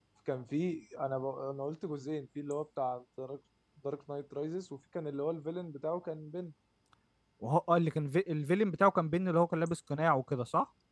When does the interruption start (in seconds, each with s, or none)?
none